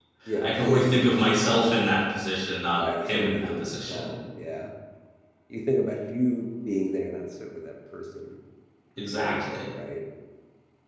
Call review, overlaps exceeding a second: present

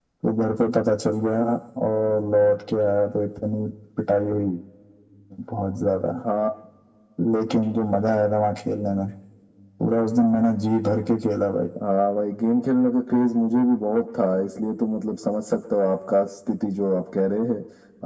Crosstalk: none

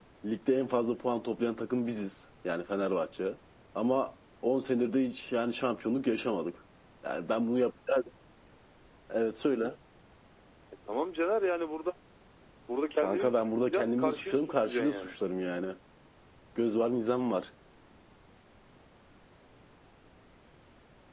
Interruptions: present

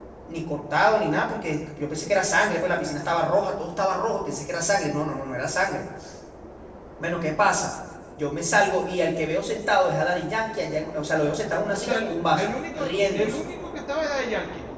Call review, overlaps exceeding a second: present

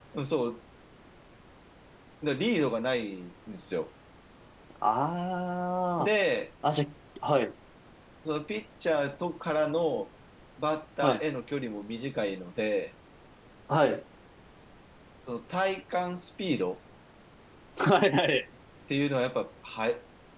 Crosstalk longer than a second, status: none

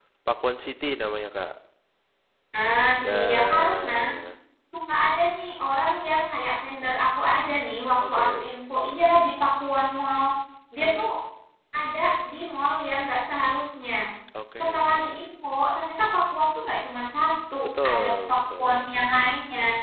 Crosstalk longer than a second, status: present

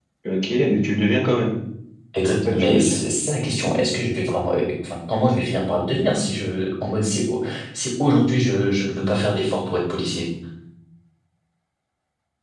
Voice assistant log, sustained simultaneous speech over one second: none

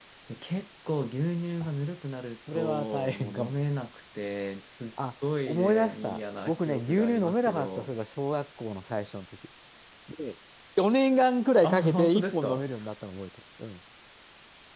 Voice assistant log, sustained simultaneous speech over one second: present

